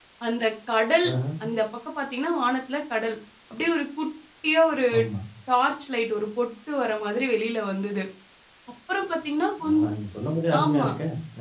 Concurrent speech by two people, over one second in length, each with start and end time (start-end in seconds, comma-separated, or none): none